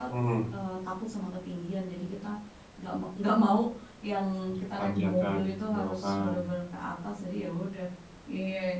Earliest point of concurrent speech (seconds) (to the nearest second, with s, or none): 5 s